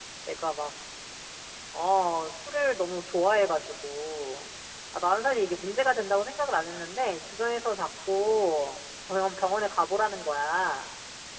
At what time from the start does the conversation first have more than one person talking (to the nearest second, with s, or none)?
none